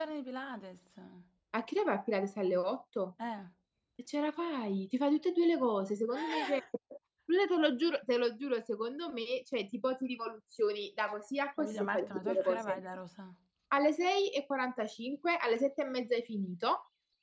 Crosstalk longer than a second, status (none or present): present